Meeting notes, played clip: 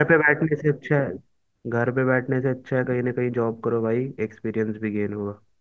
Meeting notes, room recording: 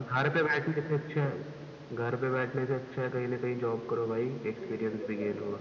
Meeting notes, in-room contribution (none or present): present